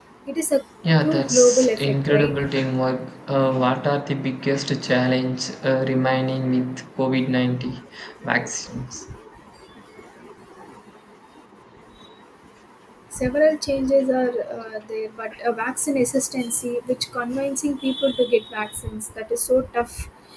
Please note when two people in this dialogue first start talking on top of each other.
1.0 s

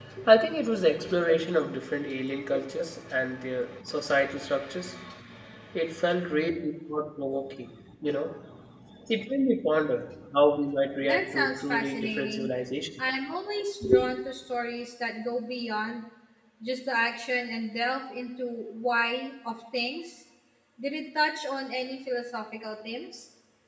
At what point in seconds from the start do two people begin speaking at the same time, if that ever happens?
11.0 s

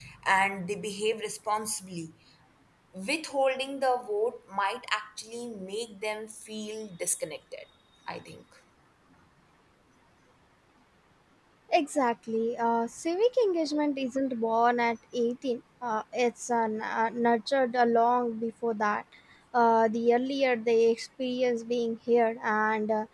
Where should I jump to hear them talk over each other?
none

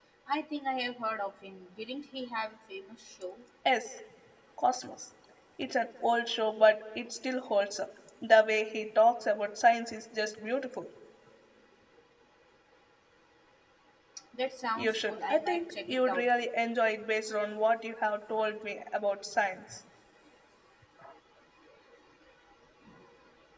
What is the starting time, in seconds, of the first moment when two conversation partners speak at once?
14.8 s

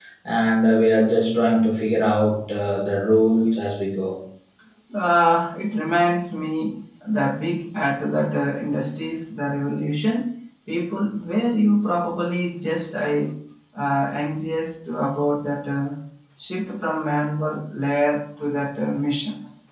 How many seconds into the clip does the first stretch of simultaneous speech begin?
none

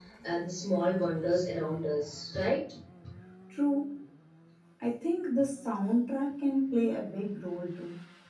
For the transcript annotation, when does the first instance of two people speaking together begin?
none

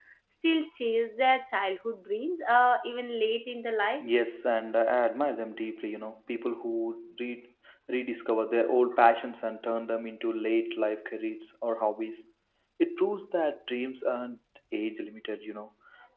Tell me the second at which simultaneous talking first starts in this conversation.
none

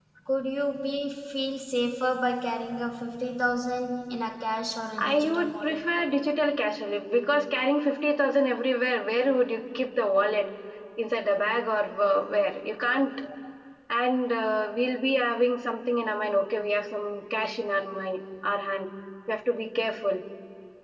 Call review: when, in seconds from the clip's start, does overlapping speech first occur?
5.0 s

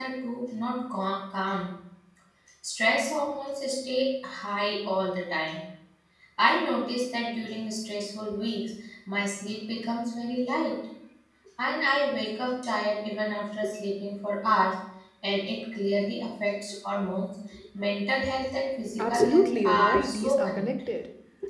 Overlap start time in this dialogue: 19.0 s

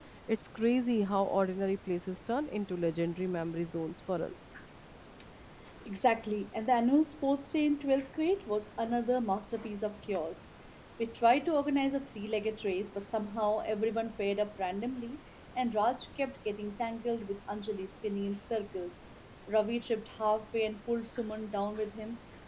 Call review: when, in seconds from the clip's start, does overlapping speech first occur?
none

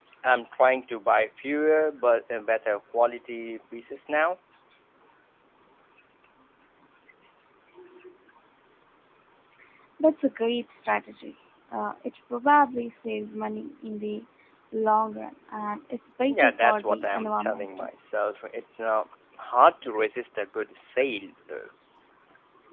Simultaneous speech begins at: 16.2 s

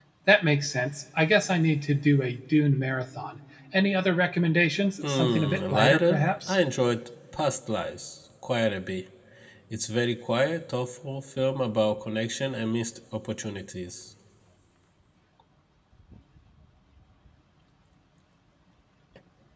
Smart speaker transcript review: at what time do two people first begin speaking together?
5.0 s

